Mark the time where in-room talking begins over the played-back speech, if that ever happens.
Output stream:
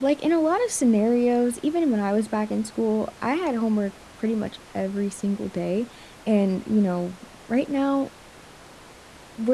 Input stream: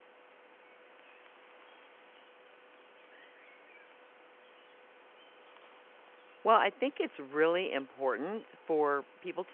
6 s

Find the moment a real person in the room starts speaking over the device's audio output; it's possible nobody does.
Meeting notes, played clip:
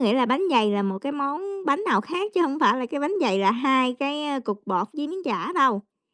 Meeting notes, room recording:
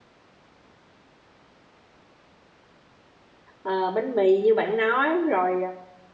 4 s

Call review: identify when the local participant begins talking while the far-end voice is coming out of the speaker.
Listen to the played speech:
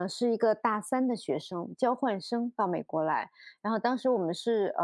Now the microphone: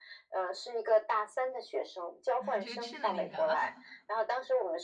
2 s

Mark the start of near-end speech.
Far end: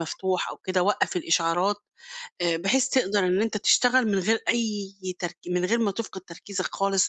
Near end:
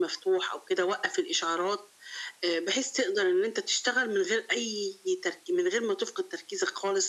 none

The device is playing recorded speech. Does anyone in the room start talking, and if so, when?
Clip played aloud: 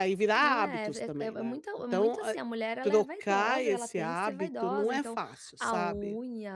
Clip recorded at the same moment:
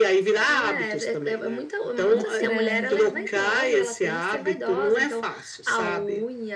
2 s

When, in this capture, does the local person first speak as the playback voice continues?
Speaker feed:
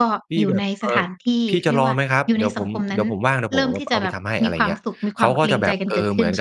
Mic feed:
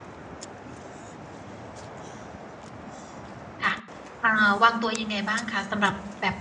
4 s

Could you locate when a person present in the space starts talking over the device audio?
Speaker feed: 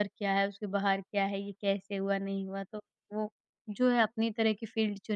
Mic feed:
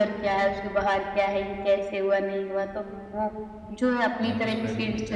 4 s

